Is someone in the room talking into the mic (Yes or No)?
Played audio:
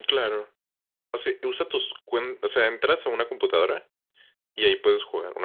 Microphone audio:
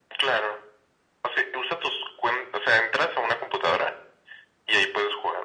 No